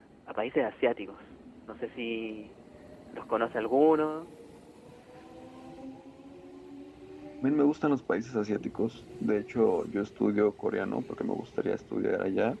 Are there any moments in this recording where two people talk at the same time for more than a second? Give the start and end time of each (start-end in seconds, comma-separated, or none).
none